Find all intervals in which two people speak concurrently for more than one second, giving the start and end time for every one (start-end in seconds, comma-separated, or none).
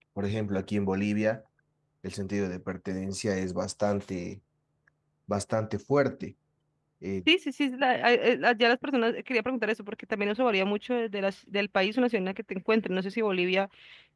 none